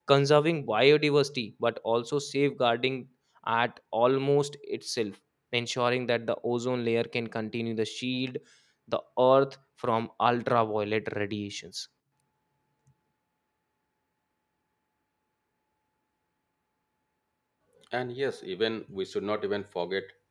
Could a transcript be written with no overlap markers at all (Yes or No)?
Yes